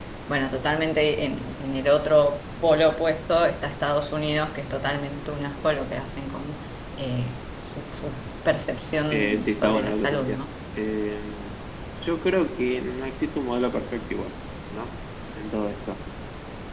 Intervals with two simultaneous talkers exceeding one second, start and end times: 9.1-10.5

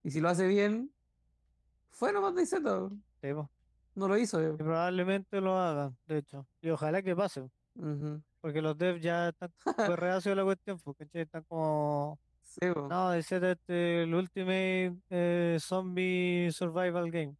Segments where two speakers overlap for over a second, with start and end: none

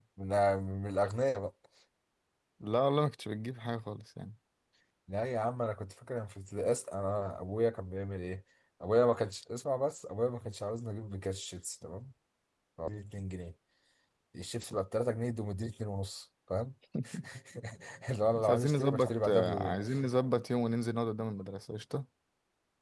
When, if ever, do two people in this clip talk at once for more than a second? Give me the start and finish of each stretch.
18.4-19.7

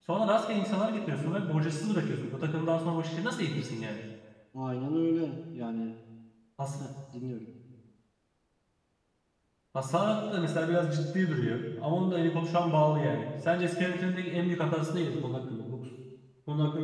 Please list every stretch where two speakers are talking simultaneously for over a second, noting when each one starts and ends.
none

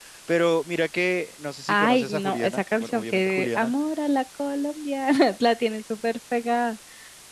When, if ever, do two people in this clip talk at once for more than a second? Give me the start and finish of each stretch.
1.7-3.7

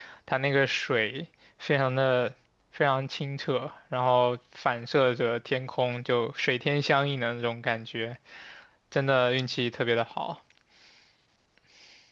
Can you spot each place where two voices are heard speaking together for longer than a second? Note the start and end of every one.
none

